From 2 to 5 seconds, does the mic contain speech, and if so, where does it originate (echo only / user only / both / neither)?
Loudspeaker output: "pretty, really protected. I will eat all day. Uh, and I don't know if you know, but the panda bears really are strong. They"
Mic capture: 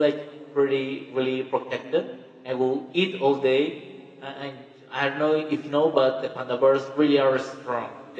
echo only